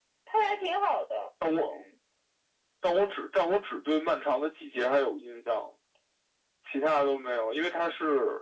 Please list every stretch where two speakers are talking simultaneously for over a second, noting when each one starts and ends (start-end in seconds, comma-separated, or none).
none